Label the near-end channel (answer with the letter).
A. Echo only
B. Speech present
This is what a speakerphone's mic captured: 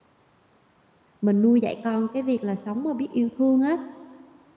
B